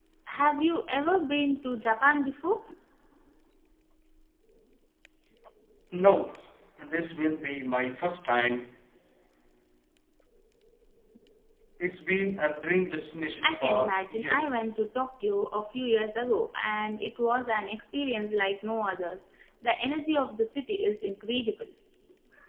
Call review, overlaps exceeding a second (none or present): present